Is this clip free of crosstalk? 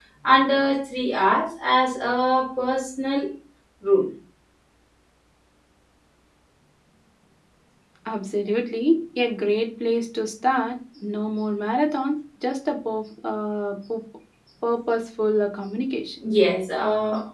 Yes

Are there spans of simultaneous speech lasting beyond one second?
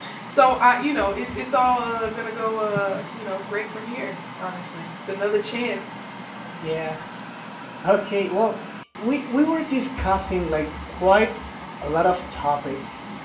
No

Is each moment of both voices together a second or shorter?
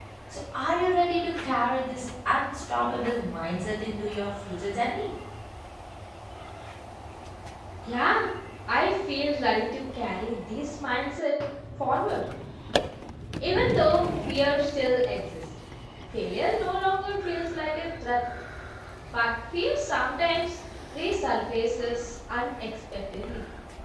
Yes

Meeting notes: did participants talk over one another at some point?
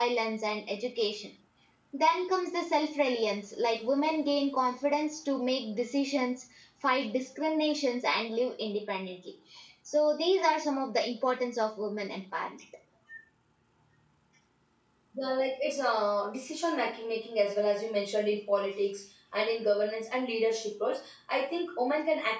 No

